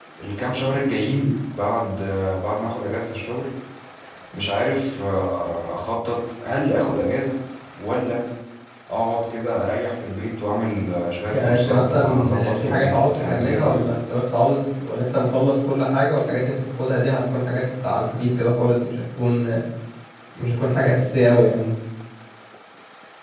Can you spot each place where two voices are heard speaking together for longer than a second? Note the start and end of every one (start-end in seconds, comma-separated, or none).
11.3-13.8